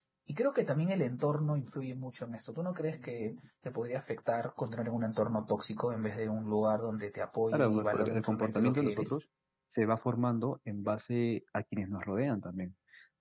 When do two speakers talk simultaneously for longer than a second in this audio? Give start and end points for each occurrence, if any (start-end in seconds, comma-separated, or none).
7.5-9.1